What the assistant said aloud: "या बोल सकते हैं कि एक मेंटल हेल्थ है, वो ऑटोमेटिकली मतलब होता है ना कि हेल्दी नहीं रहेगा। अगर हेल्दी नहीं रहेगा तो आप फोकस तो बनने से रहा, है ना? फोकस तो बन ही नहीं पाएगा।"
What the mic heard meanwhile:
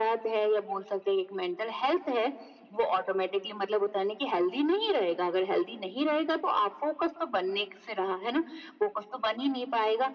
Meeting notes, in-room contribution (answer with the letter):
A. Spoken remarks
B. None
B